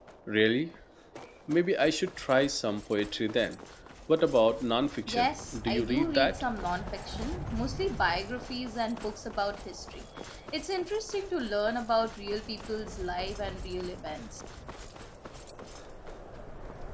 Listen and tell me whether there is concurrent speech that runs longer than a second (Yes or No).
Yes